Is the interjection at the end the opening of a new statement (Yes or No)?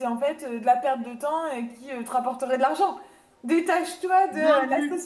No